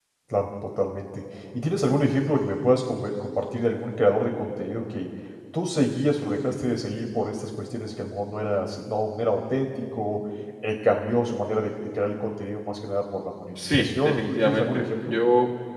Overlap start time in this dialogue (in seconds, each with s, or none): 13.6 s